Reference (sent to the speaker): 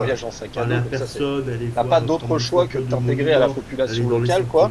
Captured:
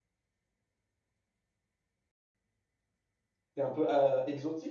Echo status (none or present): none